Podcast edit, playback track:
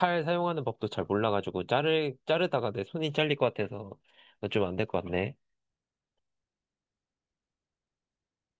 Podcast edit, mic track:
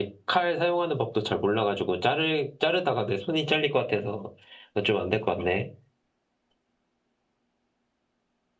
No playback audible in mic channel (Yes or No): No